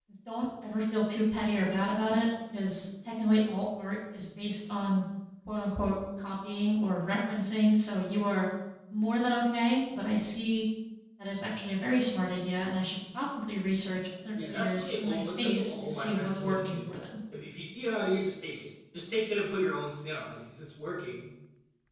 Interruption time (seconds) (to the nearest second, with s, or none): 14 s